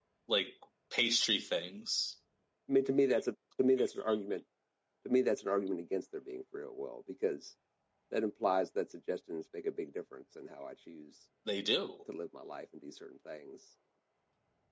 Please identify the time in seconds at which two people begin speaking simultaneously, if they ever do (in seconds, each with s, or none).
none